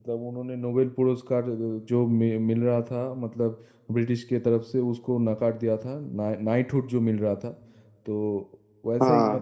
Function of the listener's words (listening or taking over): listening